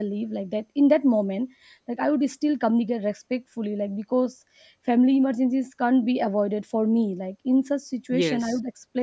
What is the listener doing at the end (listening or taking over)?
listening